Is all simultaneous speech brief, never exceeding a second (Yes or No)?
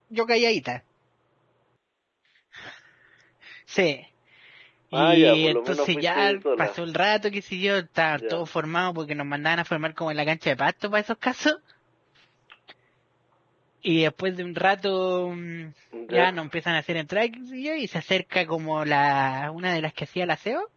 No